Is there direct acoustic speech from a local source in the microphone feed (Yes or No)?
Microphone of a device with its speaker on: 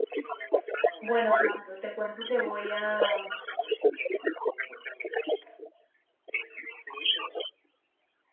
Yes